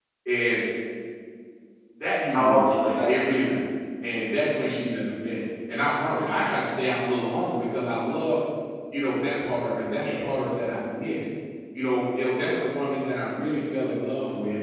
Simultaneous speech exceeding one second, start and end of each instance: 2.3-3.5

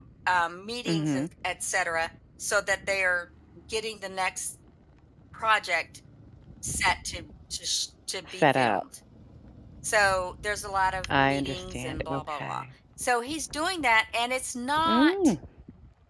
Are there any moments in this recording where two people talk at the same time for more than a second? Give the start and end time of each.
11.2-12.6

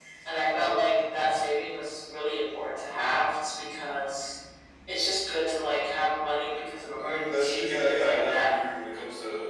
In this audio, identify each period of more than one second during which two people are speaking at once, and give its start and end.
6.9-8.5

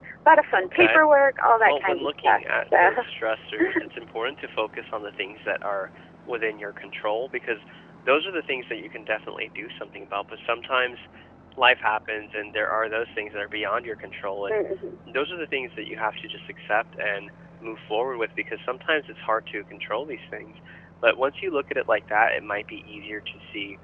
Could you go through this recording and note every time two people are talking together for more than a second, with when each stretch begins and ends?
1.6-3.0

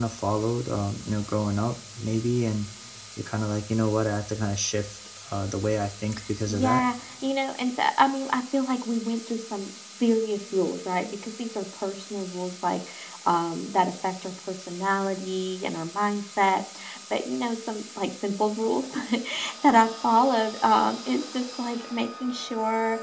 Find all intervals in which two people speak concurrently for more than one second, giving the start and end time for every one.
none

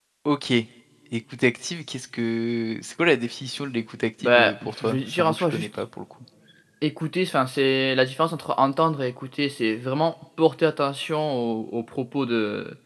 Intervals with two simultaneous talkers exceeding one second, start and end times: 4.2-5.6

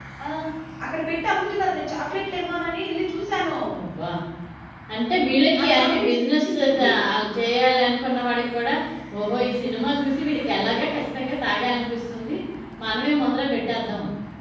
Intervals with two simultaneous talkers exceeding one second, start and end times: 5.6-6.9

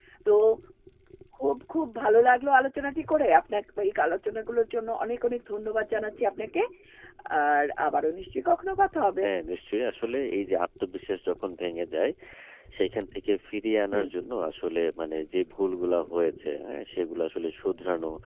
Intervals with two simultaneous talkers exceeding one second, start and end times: none

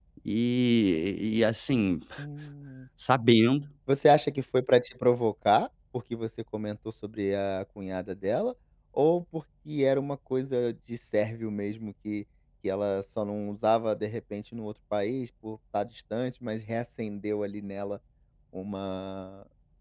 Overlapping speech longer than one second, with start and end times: none

